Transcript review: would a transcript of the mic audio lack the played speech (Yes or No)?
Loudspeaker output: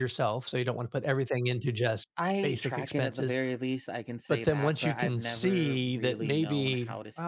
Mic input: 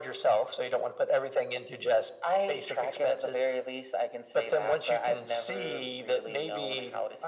No